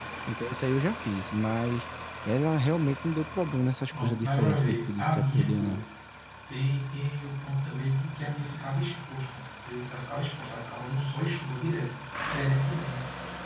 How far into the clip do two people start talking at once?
3.9 s

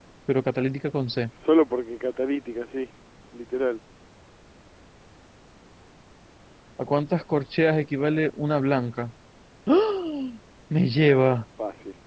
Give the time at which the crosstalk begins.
none

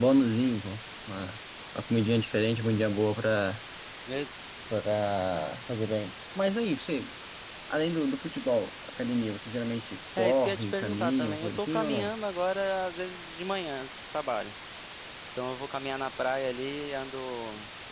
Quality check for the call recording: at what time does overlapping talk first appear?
10.2 s

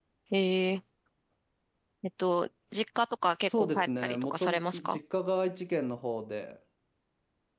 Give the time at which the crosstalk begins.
3.5 s

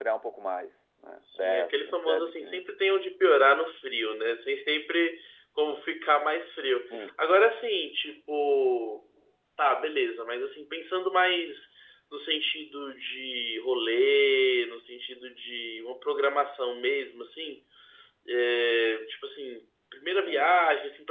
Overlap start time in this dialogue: 1.4 s

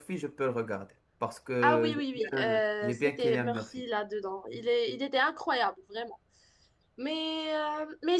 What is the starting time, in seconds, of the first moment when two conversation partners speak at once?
1.6 s

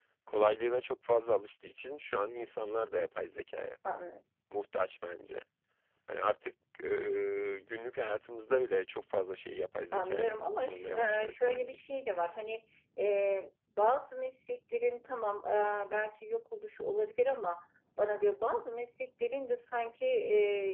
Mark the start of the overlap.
9.9 s

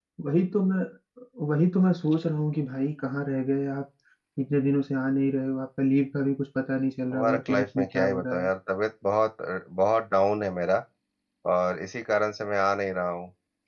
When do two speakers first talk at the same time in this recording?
7.1 s

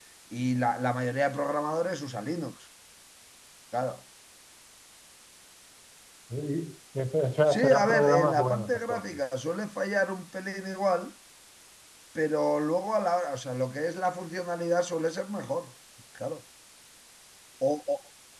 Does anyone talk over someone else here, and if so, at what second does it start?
7.5 s

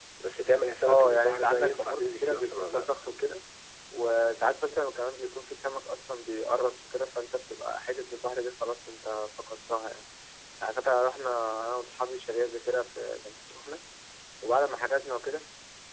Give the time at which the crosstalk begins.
0.8 s

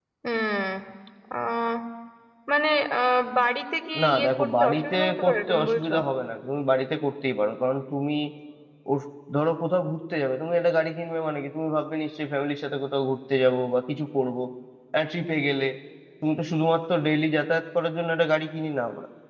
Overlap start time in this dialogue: 3.9 s

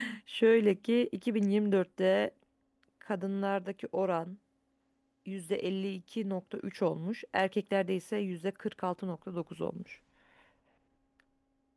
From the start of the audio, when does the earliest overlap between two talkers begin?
none

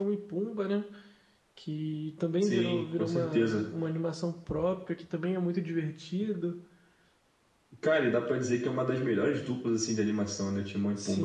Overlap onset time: 2.4 s

